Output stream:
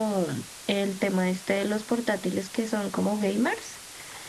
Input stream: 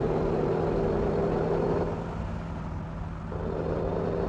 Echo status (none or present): none